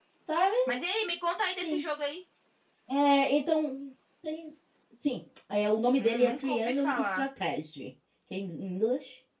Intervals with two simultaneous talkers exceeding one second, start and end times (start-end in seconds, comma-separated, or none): 6.0-7.2